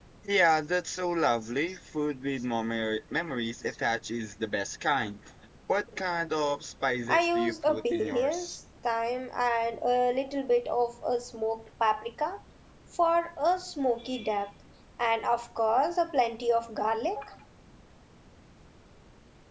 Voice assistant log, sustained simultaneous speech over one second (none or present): present